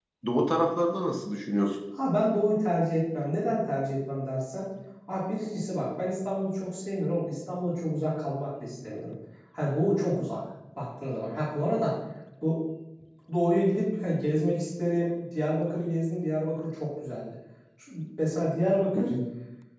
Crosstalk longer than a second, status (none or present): none